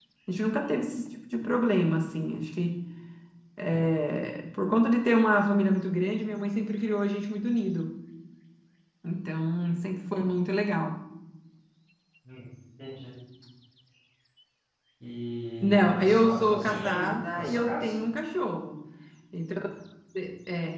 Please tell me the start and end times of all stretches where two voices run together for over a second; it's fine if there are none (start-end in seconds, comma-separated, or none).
15.6-17.9